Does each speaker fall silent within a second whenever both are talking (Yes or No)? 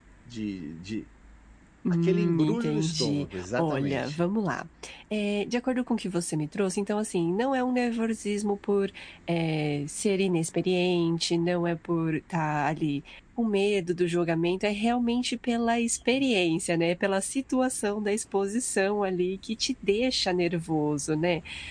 No